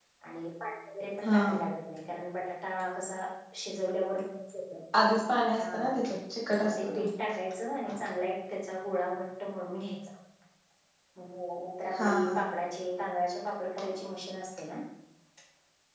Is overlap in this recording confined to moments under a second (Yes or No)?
Yes